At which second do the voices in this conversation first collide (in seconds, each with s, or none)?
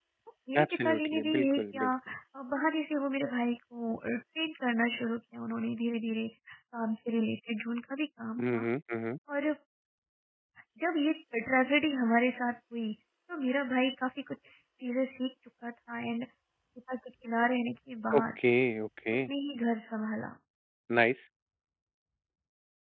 0.6 s